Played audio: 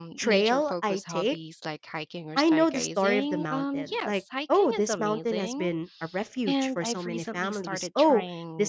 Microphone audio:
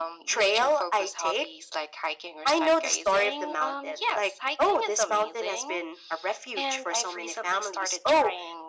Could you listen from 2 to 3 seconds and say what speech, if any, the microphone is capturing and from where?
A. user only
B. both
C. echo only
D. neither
C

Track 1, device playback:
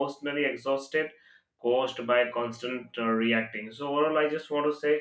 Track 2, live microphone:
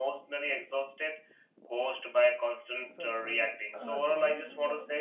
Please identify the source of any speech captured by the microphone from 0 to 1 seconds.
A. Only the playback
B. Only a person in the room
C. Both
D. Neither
A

